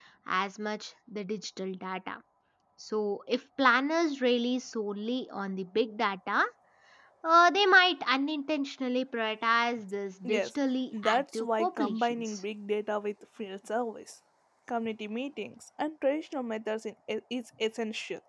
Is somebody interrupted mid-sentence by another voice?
Yes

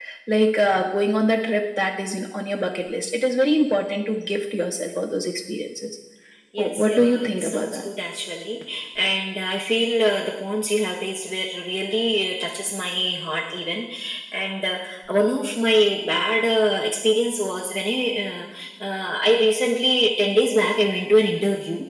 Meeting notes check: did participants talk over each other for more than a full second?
Yes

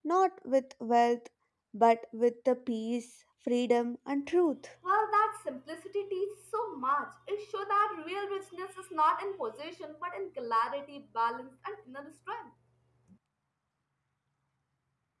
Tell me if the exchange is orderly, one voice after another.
Yes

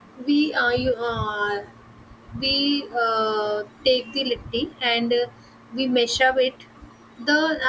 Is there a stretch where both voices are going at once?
No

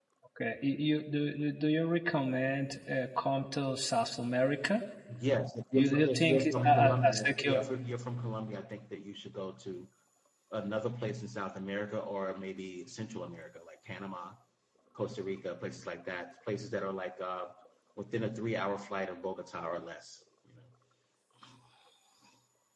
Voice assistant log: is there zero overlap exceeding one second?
No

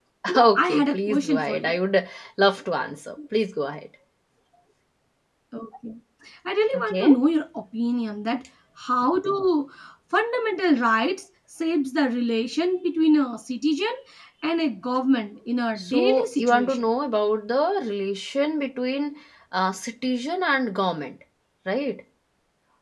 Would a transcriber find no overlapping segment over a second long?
No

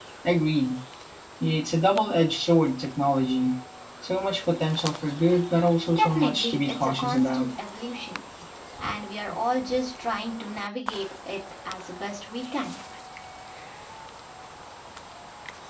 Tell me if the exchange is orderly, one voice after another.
No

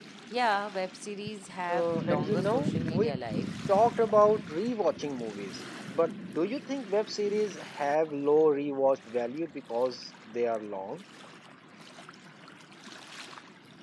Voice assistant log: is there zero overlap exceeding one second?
No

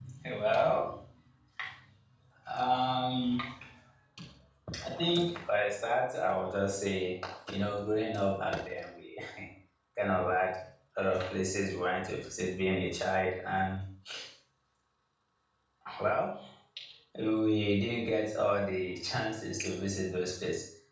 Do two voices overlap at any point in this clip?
No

